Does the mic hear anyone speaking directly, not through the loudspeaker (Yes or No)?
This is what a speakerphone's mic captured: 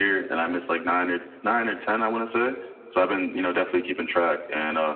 No